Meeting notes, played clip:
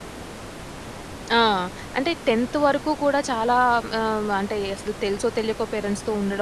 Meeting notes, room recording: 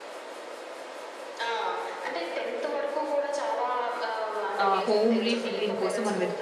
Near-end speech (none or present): present